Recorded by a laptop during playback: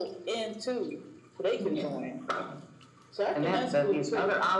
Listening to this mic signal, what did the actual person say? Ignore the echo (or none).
none